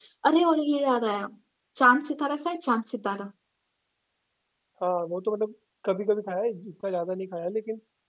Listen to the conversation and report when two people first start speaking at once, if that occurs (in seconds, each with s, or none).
none